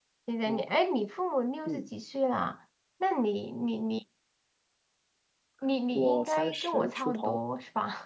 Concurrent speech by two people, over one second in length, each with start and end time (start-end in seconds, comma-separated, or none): 6.0-7.4